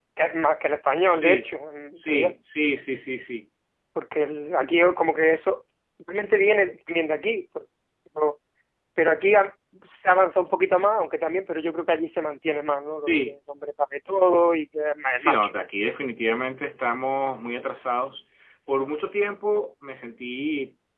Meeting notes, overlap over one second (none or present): none